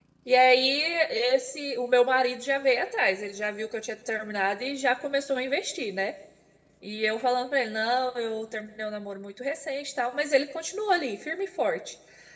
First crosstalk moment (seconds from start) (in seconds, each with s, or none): none